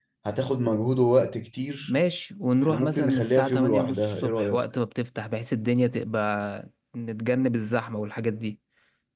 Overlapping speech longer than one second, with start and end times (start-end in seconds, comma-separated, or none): 2.6-4.6